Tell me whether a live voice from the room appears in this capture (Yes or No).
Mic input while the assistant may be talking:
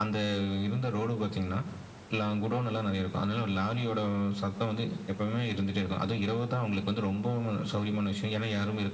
No